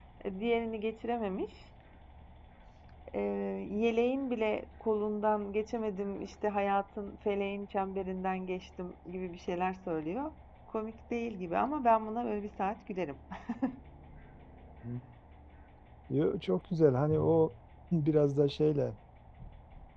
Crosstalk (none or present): none